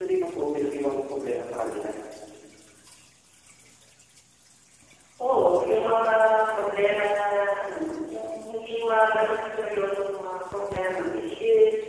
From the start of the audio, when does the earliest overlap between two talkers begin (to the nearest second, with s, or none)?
none